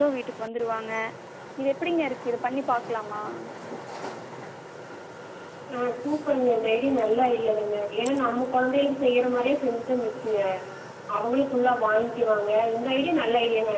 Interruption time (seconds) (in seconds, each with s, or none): none